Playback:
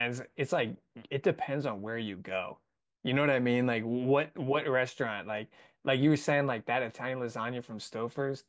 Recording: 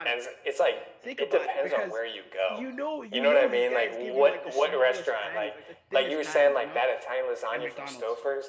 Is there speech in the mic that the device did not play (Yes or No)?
Yes